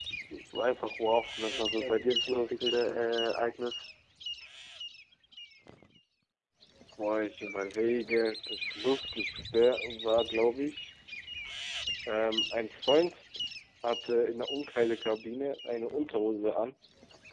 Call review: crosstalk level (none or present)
present